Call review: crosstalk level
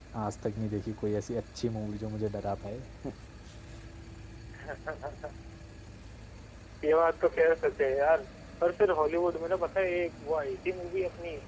none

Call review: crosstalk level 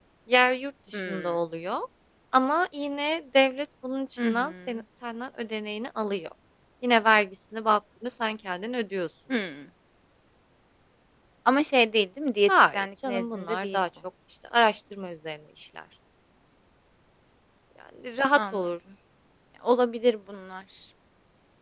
present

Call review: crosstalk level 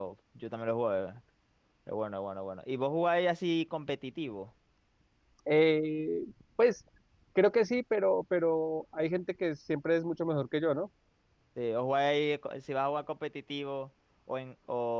none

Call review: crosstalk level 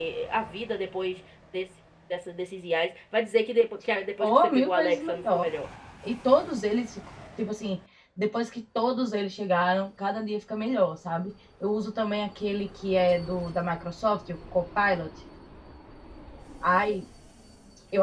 present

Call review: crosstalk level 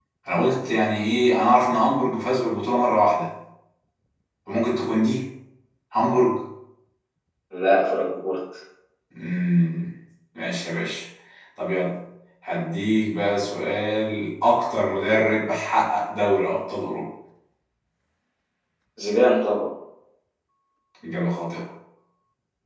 none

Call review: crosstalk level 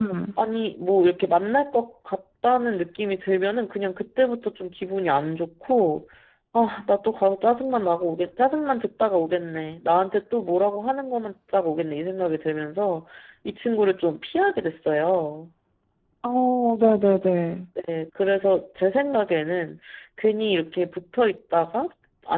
none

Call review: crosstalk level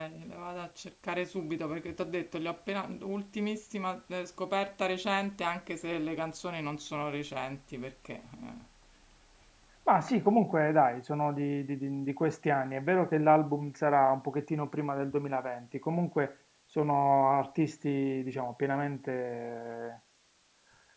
none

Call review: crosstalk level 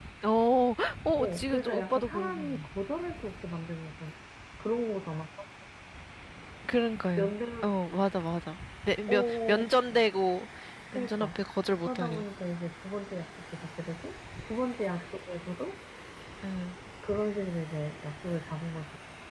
present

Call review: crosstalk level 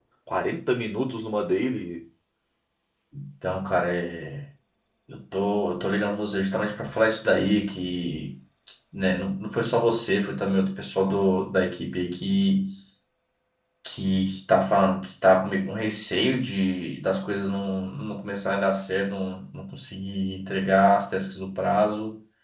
none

